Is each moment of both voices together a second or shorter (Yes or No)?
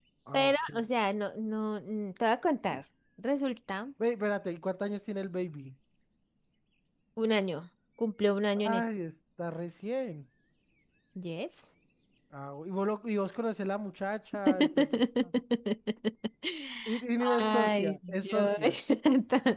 No